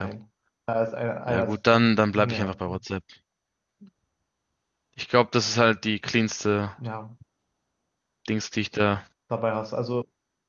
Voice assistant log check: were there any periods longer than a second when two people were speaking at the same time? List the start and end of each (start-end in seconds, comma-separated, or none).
1.3-2.8